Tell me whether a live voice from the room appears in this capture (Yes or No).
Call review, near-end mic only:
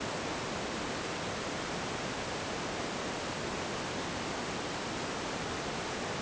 No